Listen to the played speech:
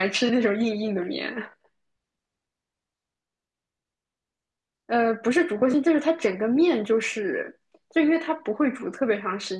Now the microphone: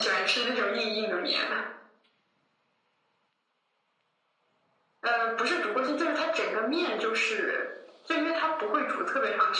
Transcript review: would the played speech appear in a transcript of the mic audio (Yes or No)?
Yes